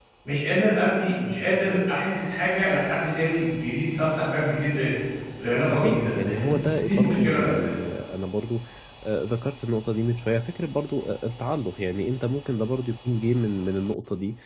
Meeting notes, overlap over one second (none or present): present